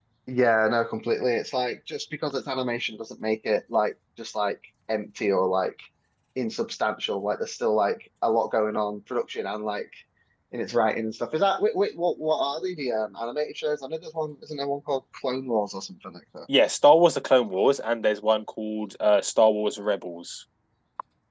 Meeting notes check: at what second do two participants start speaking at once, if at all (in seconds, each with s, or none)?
none